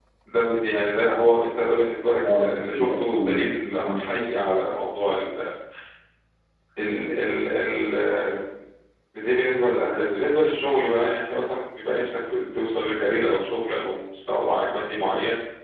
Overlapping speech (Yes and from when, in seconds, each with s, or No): Yes, from 2.2 s